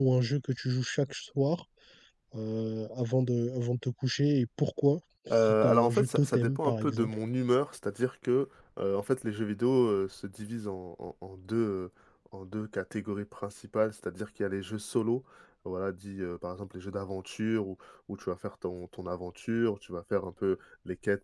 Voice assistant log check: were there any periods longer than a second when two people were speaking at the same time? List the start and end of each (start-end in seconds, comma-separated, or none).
5.3-7.1